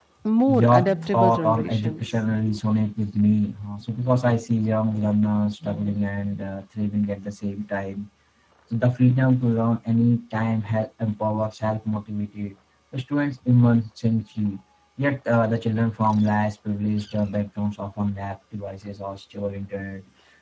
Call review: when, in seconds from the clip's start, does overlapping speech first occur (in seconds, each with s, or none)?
0.6 s